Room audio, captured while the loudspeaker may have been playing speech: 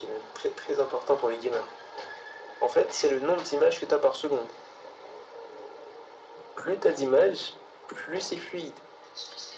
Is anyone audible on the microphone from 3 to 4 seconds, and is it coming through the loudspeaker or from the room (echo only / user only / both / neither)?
echo only